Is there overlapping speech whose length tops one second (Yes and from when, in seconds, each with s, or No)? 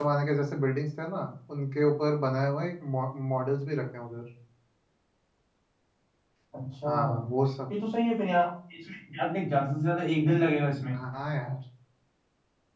No